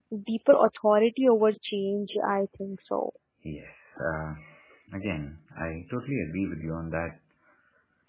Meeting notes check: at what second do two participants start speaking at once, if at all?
none

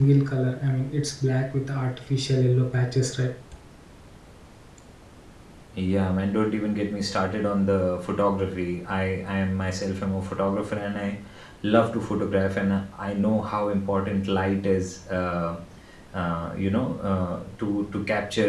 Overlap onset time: none

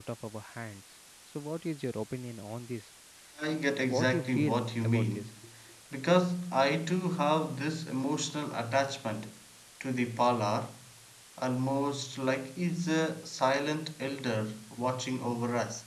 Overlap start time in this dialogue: 3.9 s

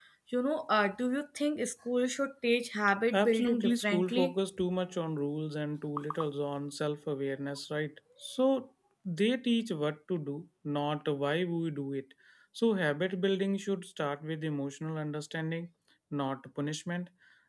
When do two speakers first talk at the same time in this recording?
3.1 s

